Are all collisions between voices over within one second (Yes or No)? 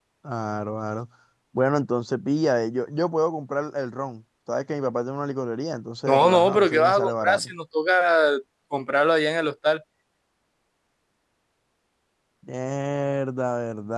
No